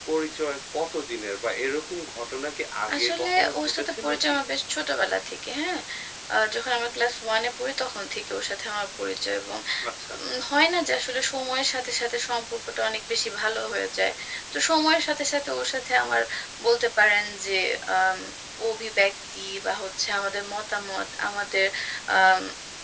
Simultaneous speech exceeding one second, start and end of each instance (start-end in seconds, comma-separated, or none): 2.9-4.4